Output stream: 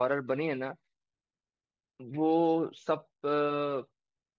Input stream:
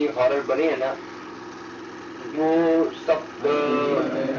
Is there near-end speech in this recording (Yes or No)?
Yes